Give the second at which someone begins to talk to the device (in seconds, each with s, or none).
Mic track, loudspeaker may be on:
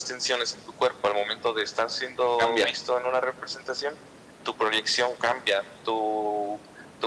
2.4 s